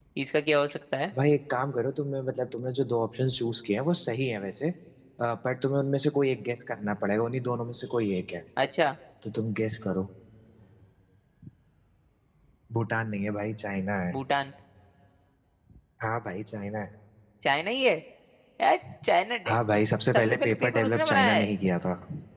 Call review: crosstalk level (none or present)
present